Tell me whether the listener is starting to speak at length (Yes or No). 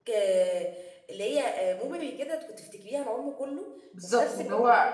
Yes